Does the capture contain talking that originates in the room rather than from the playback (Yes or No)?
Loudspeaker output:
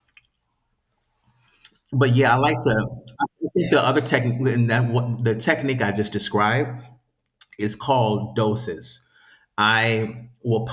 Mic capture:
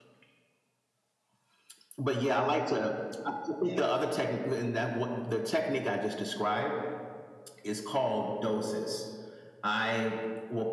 No